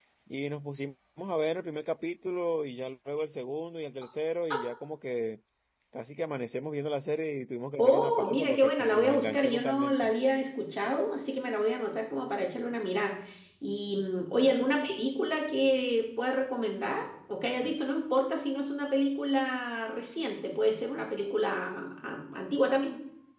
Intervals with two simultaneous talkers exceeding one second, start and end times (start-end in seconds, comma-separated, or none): 7.8-10.1